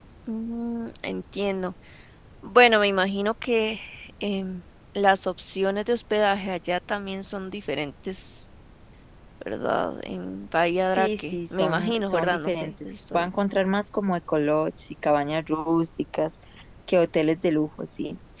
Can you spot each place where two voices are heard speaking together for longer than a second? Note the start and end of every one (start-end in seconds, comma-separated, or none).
11.0-13.3